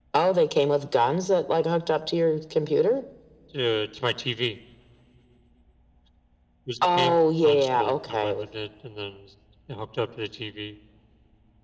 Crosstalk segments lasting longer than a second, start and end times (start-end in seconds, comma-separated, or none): 6.8-8.4